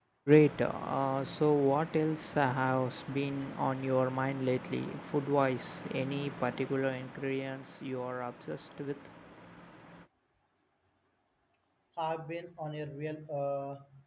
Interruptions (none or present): none